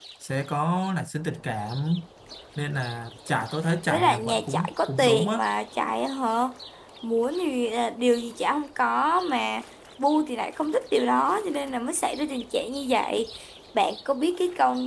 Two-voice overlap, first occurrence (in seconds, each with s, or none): 3.9 s